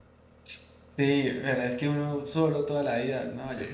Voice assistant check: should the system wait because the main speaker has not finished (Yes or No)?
No